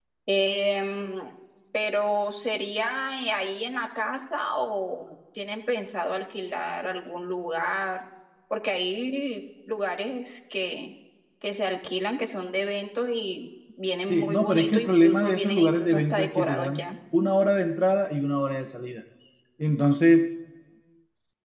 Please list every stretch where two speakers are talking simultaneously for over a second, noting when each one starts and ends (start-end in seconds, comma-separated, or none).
14.1-16.9